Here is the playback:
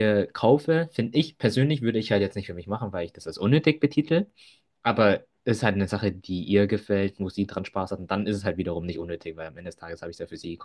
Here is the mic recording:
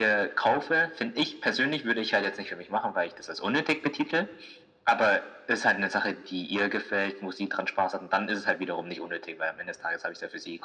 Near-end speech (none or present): none